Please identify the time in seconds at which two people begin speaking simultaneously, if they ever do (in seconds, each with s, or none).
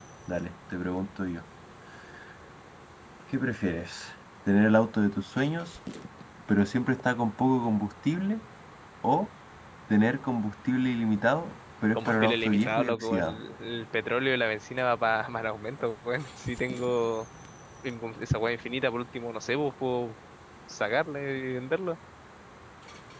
11.9 s